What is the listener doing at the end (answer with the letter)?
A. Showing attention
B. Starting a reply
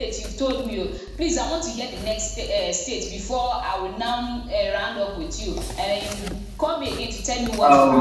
B